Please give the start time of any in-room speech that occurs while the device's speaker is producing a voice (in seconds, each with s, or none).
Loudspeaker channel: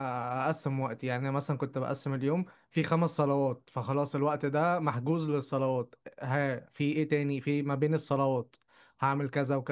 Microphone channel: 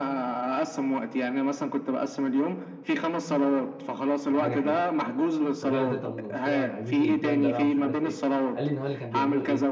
4.3 s